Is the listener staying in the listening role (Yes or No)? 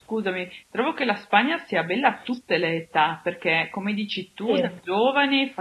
Yes